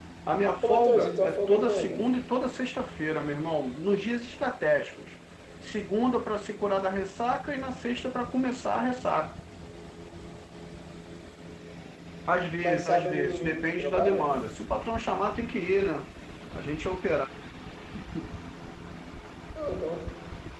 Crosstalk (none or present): present